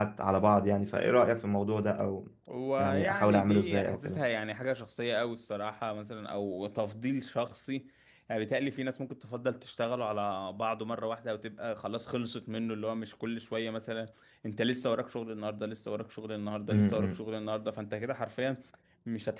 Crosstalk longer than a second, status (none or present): present